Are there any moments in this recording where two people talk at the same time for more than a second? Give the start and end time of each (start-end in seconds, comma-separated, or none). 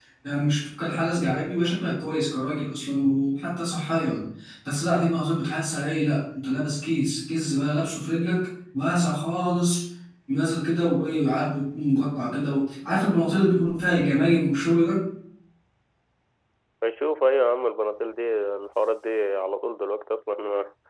none